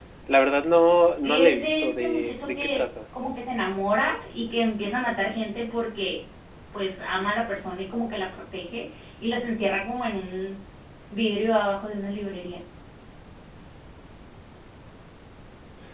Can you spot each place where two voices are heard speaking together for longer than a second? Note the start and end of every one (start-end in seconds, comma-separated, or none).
1.2-2.8